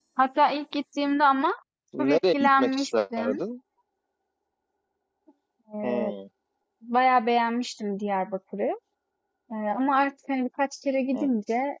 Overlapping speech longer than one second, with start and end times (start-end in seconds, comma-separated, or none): 2.1-3.4